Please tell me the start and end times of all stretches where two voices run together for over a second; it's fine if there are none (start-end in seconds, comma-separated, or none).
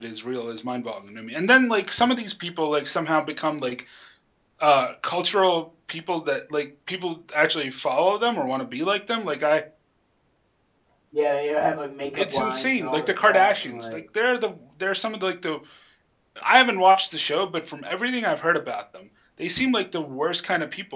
12.2-14.0